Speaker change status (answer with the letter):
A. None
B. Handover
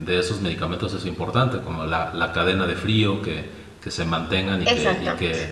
A